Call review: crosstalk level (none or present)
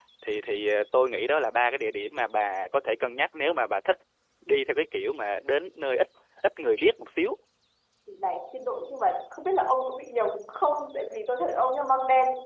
none